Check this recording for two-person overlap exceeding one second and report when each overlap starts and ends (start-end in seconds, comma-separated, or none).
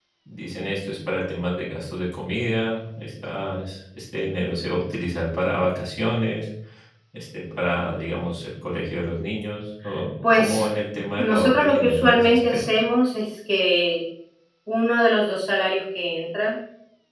11.2-12.6